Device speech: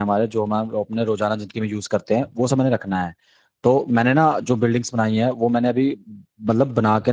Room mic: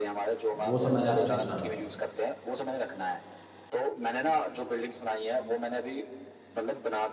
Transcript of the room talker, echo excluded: वो सब मैंने आपसे पूछना था

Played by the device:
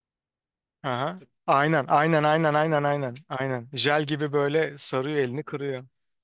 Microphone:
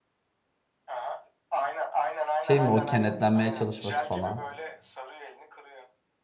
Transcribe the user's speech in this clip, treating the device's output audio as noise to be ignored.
Şey mi o kenetlenmeye çalışması falan.

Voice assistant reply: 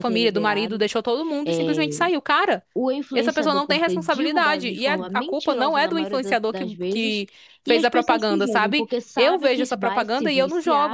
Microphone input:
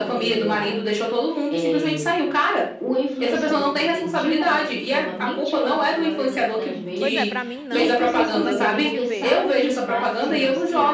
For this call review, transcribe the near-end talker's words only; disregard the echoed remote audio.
Pois é, pra mim não, porque como é que a gente vê?

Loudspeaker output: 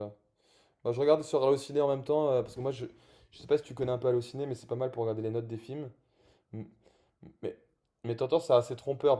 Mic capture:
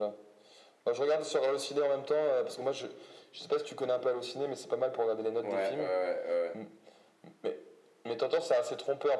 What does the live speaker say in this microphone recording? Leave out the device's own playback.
Ouais, ouais, ouais. ouais.

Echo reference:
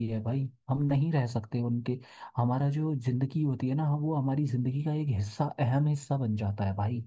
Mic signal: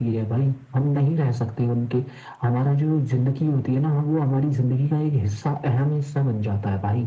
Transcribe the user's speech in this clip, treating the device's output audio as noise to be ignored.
none

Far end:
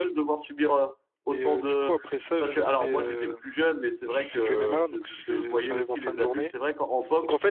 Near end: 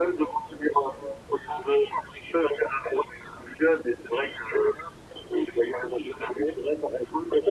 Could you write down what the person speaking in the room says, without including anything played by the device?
none

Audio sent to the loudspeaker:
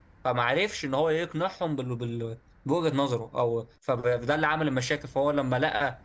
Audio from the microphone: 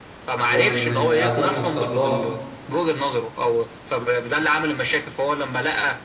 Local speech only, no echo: ومن من أولهم صدام

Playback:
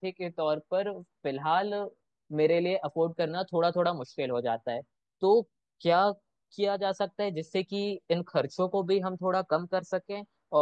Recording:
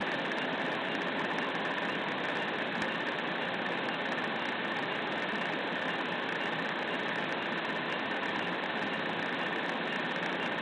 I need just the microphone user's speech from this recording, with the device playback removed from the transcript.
none

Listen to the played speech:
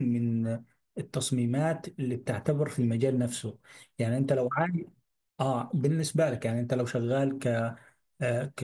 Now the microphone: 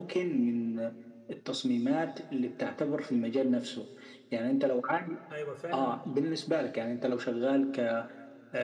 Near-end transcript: ايوه فعلا

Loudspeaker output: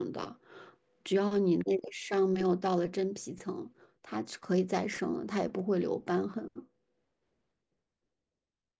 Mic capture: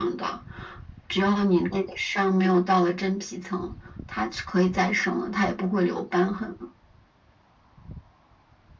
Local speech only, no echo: none

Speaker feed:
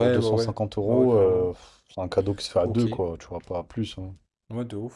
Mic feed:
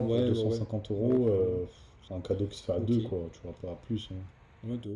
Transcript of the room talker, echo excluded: none

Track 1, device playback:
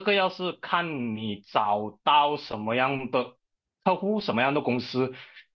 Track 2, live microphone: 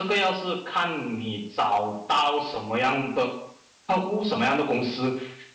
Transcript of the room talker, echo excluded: none

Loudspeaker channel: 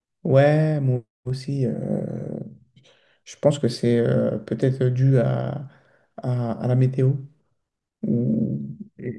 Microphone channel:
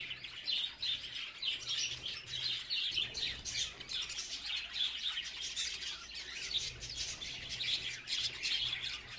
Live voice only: none

